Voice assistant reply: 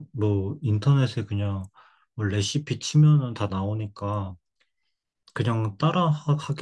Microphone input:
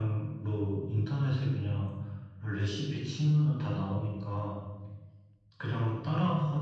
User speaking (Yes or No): No